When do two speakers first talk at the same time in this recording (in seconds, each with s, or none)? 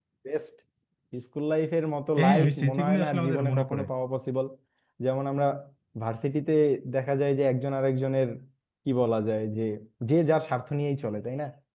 2.2 s